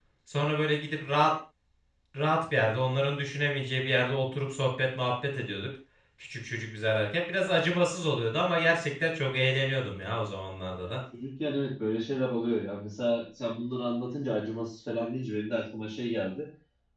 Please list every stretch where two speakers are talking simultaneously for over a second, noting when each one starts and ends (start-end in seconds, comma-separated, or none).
none